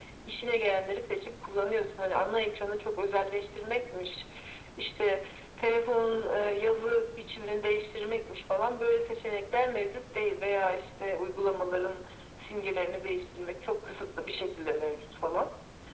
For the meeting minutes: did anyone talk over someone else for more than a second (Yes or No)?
No